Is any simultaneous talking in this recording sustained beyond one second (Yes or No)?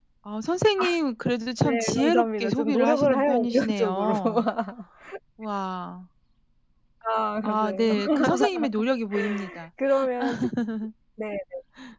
Yes